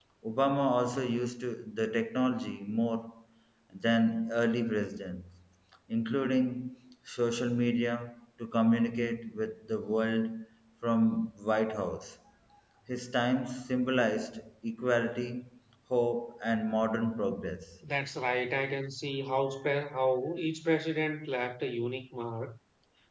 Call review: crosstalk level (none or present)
none